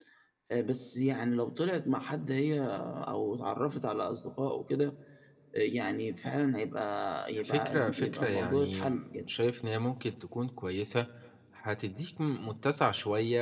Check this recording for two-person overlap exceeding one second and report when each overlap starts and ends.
7.4-9.2

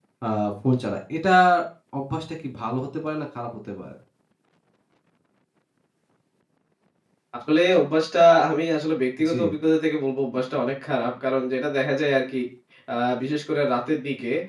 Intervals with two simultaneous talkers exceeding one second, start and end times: none

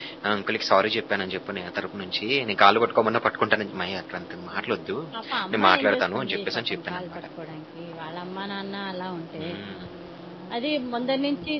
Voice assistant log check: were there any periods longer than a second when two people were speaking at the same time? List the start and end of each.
5.5-7.2

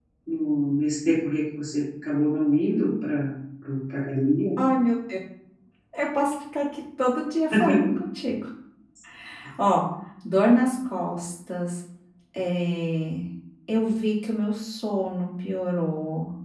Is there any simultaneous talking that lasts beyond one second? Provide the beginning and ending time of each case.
none

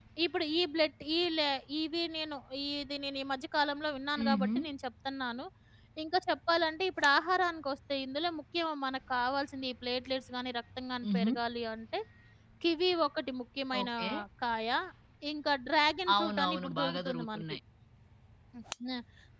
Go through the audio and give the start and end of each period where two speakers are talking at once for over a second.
16.1-17.4

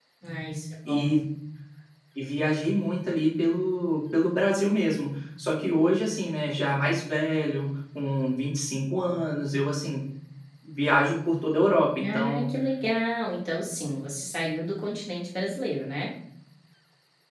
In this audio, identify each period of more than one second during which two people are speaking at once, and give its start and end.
none

